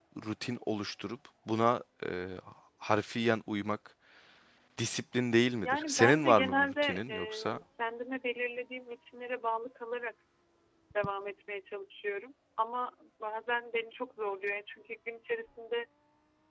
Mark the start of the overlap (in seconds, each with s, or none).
5.6 s